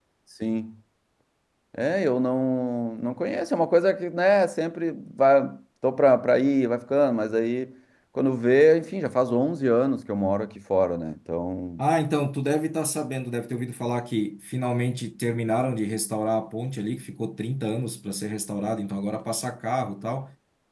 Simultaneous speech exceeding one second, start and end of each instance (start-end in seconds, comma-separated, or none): none